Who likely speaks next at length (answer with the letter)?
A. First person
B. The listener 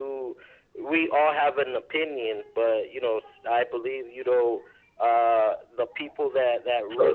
B